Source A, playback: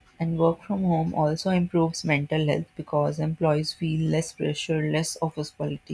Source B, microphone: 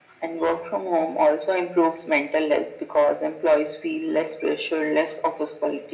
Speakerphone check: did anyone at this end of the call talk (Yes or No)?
No